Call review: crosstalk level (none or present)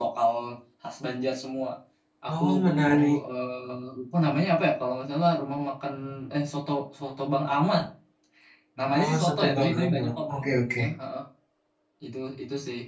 present